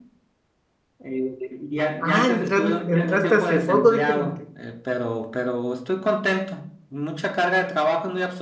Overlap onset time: 2 s

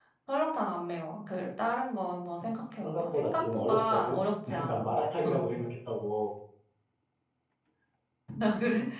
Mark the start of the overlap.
3 s

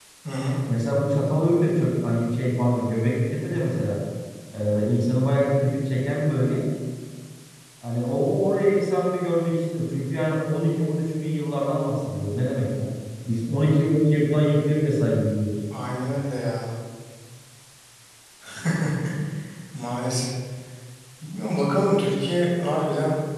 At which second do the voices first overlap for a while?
none

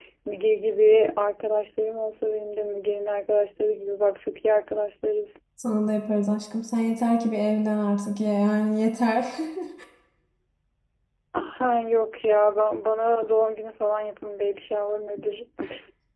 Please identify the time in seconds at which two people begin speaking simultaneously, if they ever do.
none

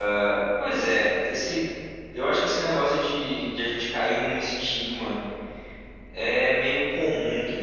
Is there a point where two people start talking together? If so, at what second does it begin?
none

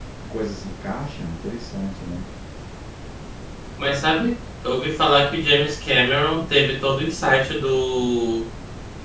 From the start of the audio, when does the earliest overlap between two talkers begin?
none

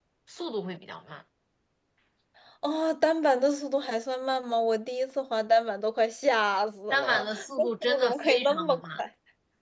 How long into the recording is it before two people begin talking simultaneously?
7 s

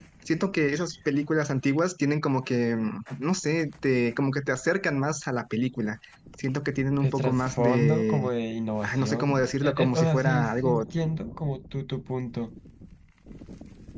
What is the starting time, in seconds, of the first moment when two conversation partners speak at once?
7 s

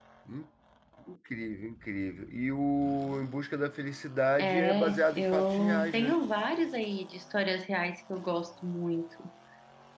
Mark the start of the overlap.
4 s

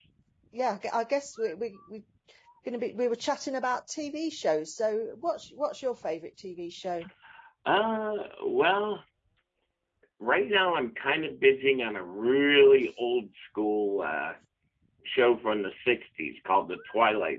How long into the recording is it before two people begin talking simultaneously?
none

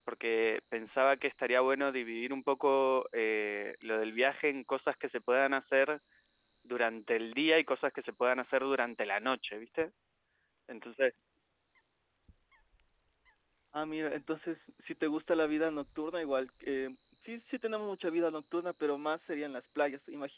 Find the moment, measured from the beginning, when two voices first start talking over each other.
none

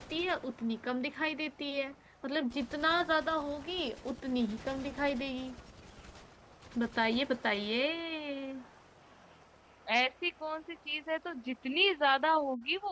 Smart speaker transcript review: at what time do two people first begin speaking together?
none

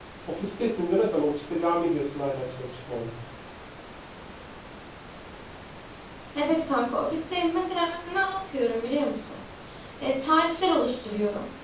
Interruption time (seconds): none

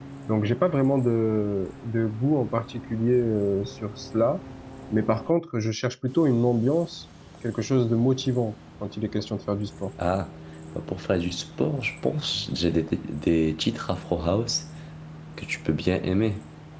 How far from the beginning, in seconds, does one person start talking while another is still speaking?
none

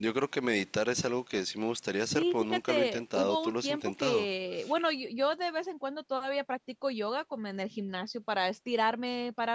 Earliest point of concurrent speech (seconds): 2 s

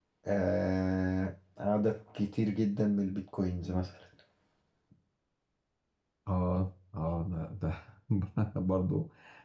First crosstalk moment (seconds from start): none

